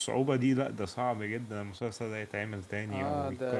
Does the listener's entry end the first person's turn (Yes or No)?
Yes